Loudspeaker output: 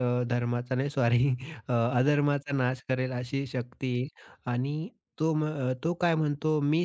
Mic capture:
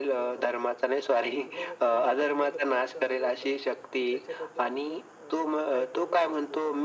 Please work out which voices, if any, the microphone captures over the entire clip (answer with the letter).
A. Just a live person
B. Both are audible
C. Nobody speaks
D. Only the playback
B